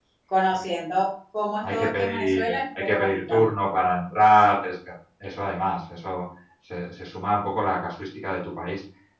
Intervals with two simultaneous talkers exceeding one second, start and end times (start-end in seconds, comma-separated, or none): 1.7-3.4